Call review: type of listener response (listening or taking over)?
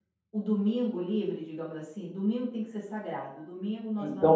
taking over